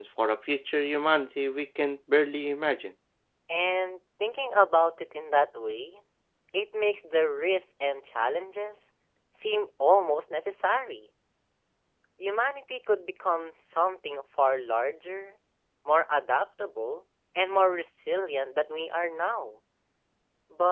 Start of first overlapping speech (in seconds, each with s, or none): none